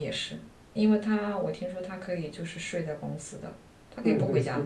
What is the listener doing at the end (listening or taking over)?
taking over